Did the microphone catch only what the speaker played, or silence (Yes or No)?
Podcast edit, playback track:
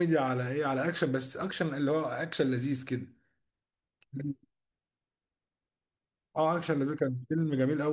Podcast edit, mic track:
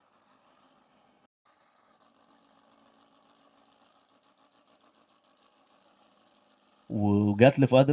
No